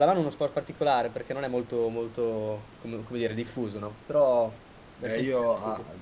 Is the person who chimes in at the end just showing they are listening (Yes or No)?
No